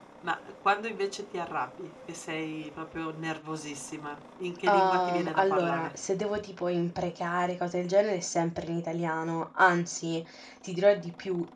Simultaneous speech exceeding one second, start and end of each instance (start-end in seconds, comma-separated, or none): 4.7-5.9